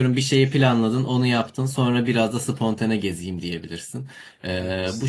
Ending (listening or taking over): listening